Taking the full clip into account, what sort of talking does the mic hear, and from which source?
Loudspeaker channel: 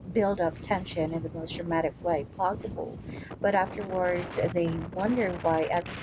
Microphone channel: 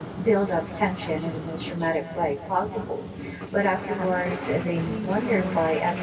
both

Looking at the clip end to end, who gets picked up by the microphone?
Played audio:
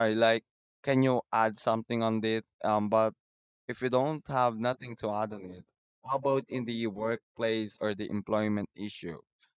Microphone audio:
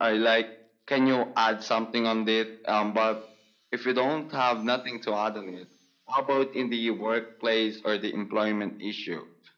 echo only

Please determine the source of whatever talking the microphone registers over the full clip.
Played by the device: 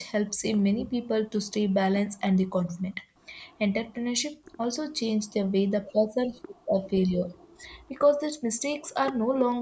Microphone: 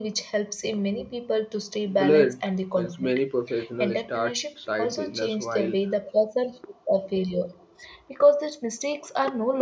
both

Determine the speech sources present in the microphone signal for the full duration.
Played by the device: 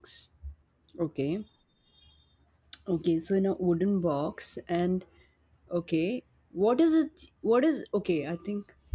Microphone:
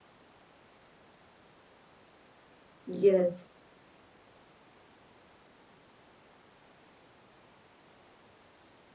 user only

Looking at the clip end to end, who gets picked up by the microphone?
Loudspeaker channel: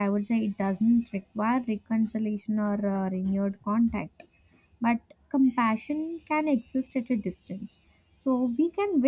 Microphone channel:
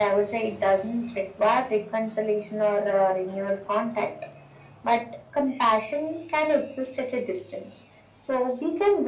echo only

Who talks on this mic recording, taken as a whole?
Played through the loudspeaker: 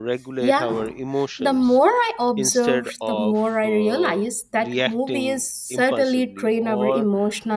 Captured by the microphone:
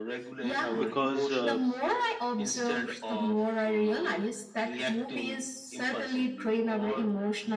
both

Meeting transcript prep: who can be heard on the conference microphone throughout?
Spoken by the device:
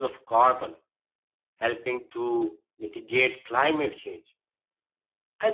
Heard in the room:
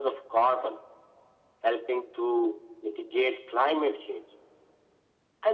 echo only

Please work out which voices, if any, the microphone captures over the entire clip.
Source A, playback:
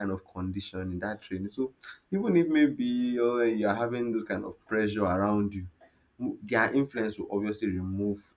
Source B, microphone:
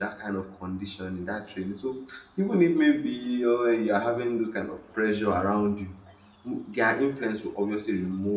echo only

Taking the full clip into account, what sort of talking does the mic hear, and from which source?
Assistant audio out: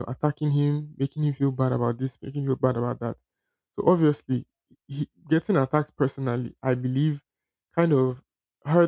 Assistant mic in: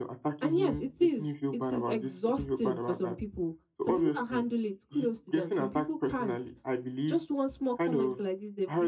both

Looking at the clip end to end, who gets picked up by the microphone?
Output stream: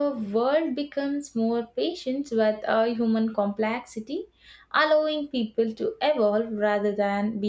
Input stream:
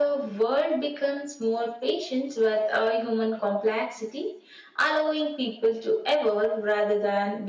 echo only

